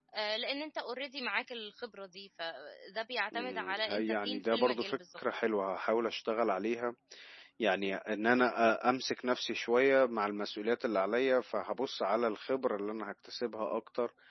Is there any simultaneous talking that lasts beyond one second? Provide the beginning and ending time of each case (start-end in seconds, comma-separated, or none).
3.3-5.2